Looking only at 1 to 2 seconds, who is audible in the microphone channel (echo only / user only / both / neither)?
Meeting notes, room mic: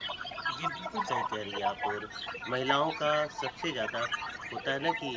both